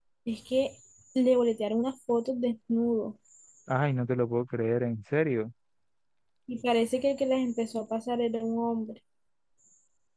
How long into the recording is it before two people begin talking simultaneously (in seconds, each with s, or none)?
none